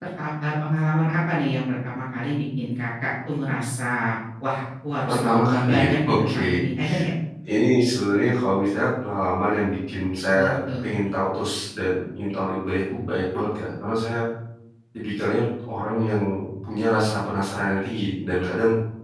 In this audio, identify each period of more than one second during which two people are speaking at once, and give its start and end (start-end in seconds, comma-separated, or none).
5.1-6.6